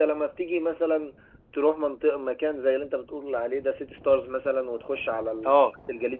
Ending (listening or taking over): listening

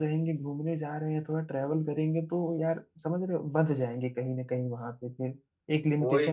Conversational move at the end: taking over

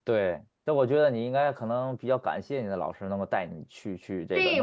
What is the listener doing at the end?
taking over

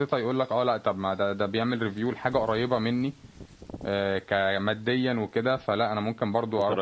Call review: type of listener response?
taking over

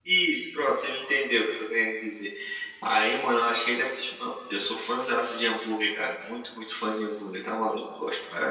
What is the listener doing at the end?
taking over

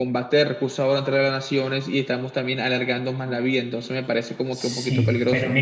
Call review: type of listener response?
taking over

